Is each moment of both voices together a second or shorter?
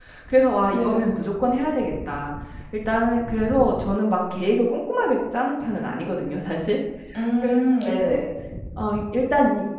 Yes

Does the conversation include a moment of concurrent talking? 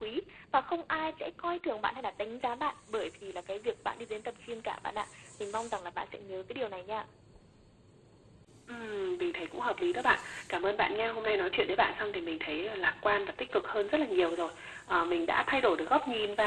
No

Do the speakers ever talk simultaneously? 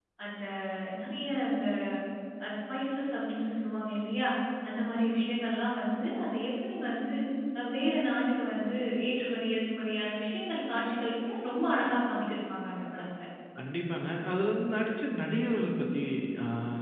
No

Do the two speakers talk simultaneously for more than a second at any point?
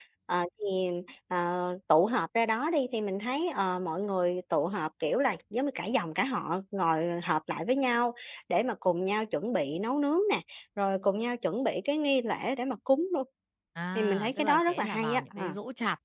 Yes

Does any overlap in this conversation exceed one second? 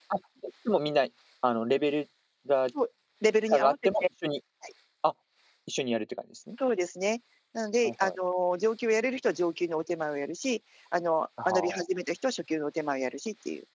No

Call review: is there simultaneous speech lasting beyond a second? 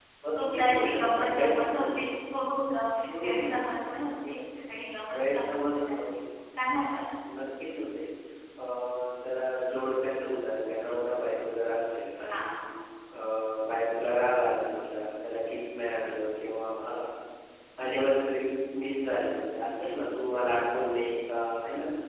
Yes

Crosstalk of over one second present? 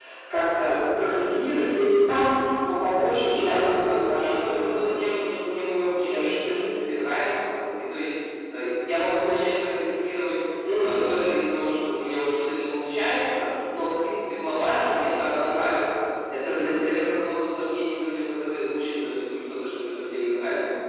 Yes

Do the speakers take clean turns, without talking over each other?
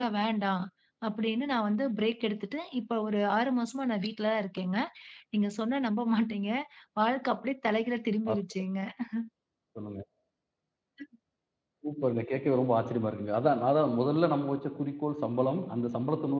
Yes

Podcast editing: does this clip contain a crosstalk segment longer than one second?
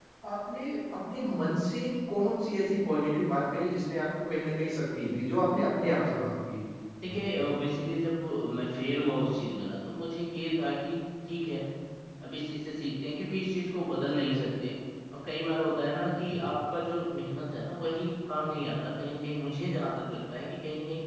No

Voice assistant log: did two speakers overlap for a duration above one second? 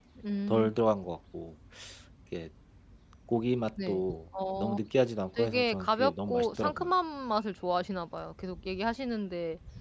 Yes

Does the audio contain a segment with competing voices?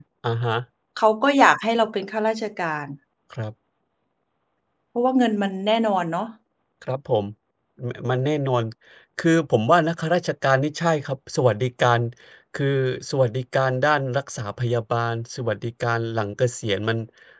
No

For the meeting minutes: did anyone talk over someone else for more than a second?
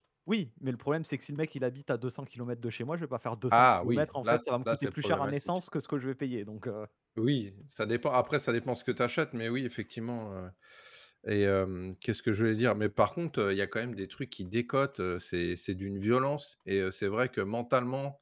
Yes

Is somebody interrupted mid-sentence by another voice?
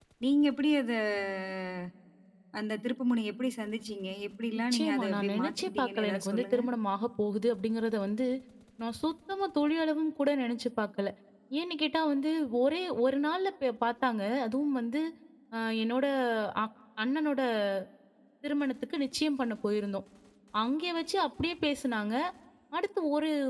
Yes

